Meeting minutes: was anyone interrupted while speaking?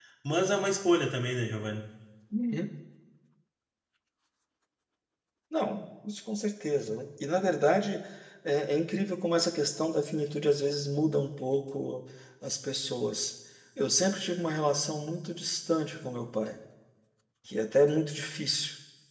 No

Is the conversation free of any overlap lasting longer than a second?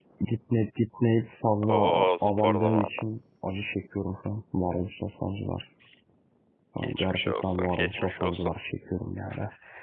No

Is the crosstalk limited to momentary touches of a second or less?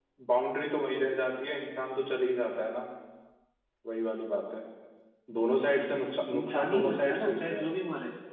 No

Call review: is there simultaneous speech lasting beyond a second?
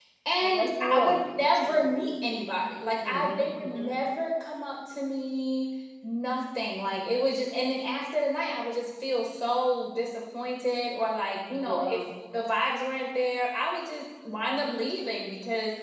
Yes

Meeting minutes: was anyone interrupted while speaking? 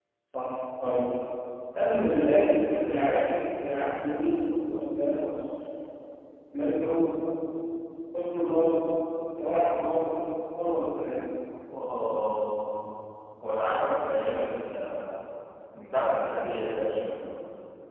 No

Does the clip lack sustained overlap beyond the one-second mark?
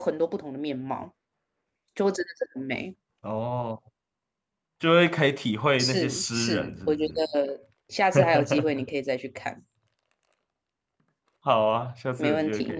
No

